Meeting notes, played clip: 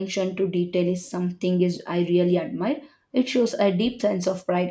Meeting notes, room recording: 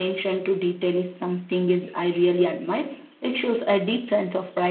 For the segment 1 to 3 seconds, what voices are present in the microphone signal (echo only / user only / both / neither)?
echo only